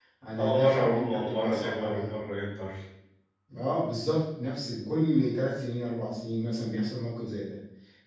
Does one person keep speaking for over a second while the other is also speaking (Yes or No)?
Yes